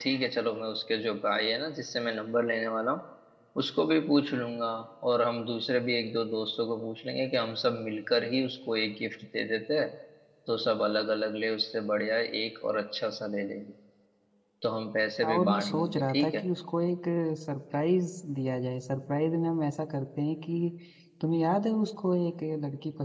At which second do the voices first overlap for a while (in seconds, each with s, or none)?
15.2 s